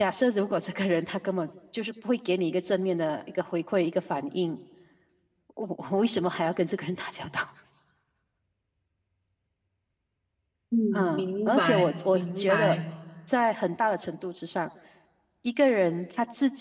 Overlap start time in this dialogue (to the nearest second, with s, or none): 11 s